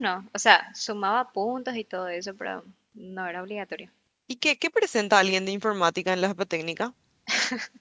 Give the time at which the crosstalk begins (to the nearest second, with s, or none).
none